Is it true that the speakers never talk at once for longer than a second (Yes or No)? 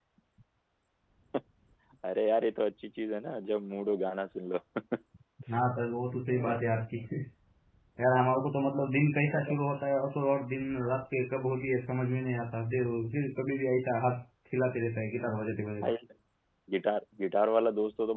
Yes